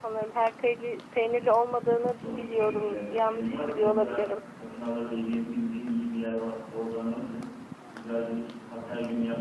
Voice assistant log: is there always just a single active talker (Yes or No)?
No